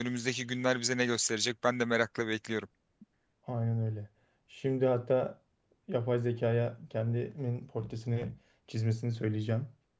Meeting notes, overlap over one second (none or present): none